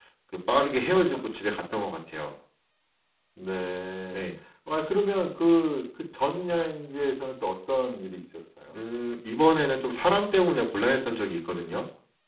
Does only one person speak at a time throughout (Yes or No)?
Yes